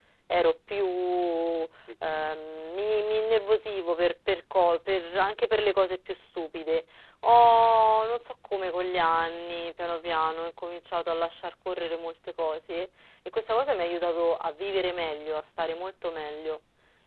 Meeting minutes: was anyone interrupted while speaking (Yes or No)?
No